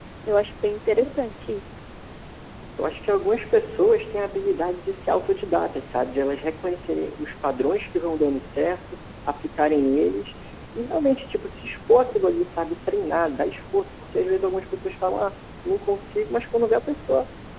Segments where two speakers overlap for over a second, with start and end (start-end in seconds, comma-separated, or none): none